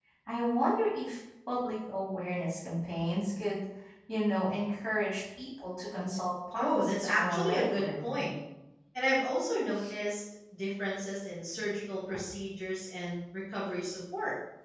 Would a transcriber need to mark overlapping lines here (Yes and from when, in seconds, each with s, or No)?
Yes, from 6.5 s